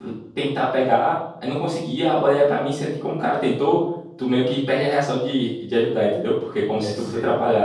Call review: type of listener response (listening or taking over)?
listening